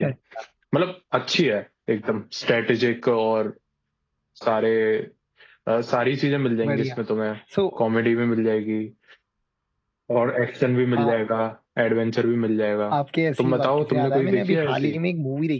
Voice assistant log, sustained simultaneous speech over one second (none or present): present